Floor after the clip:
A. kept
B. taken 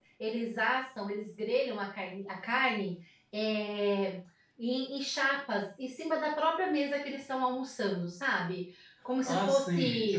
B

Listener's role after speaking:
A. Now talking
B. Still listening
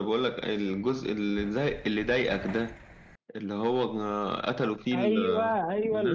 A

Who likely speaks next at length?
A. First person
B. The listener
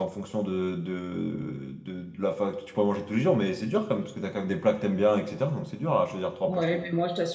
B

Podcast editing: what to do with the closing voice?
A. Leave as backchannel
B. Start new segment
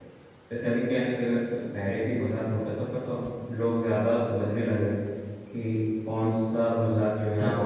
A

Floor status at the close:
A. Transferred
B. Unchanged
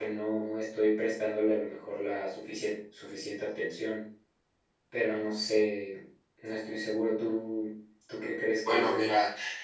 A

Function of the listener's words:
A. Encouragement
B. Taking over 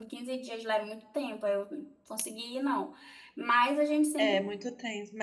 B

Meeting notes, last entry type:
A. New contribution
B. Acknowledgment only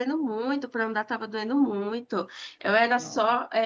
B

